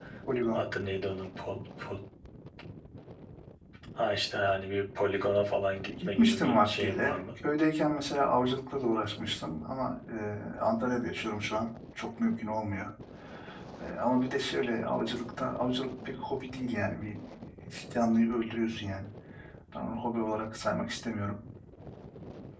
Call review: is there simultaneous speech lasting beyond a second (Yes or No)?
Yes